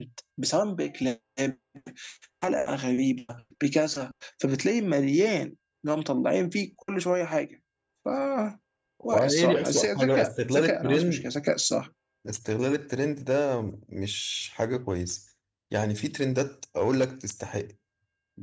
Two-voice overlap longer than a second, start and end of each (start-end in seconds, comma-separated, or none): 9.1-11.3